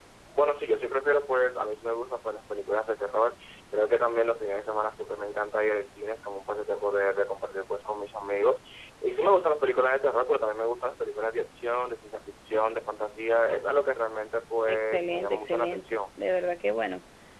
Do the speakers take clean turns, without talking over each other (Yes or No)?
No